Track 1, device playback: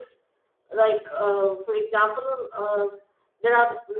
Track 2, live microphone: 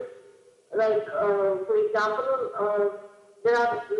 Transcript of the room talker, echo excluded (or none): none